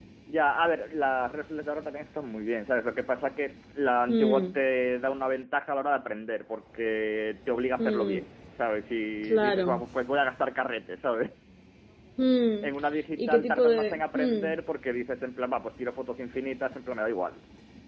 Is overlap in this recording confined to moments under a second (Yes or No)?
No